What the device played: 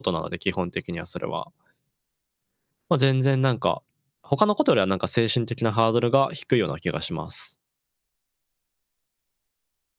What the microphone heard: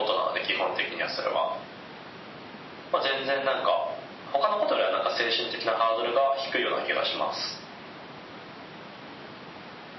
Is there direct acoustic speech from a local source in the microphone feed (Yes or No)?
No